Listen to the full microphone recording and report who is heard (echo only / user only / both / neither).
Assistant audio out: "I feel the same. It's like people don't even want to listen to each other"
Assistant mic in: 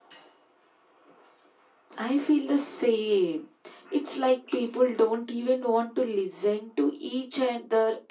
echo only